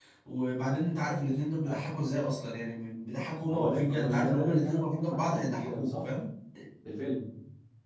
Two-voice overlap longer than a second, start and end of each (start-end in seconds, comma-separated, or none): 3.5-6.1